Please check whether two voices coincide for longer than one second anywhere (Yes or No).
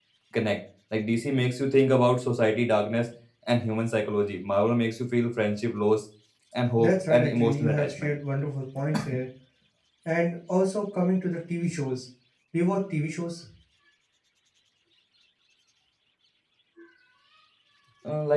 Yes